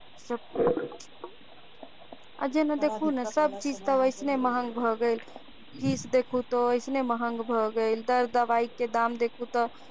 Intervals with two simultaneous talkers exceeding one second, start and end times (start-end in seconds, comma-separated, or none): 2.8-4.4